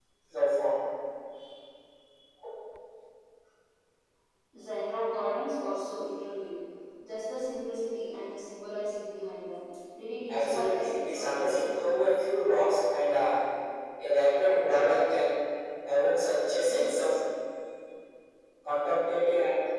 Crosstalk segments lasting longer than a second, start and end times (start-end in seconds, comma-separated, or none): 10.3-11.6